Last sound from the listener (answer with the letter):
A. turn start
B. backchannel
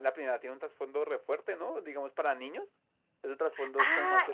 A